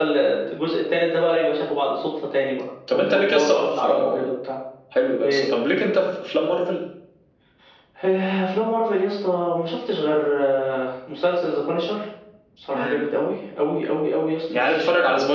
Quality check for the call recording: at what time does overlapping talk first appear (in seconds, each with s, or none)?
2.9 s